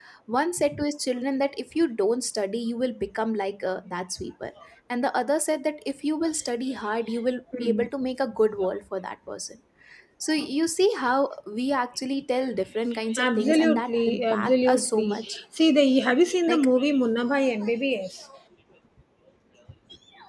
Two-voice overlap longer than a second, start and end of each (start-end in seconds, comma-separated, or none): 13.2-15.3